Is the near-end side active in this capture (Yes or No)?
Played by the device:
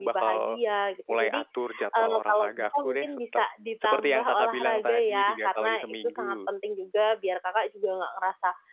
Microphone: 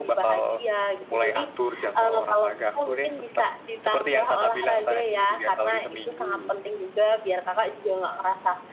No